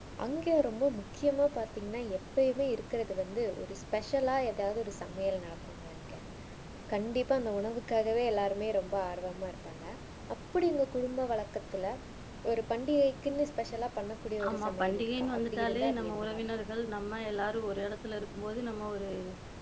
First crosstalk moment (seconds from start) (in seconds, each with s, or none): 14.4 s